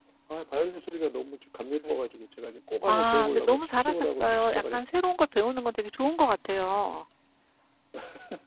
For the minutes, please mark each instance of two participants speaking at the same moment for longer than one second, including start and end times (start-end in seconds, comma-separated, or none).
2.9-5.0